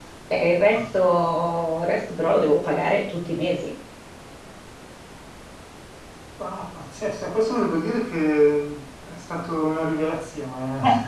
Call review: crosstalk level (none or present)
none